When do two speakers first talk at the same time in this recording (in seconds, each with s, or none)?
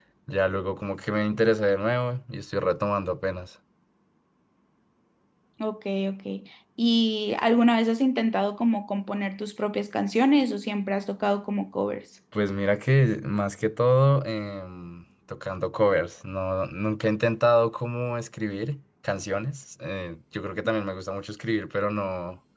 none